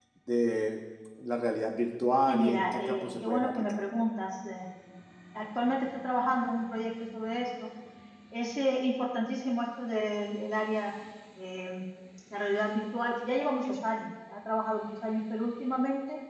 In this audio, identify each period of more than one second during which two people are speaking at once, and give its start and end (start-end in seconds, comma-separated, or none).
2.3-3.7